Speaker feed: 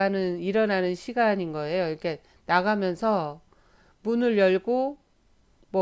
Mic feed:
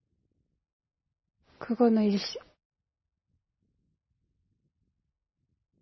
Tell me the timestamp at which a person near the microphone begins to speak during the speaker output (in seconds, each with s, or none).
1.6 s